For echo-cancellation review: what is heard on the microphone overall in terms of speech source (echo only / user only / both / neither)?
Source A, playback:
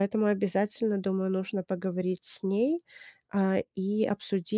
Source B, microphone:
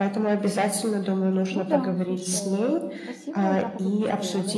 both